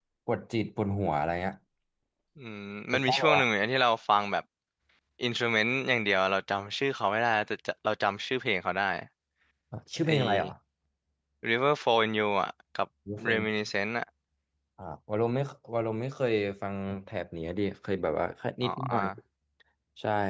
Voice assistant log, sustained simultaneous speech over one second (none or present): none